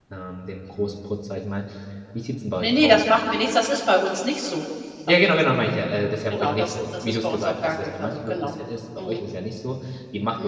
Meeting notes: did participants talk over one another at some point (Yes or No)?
Yes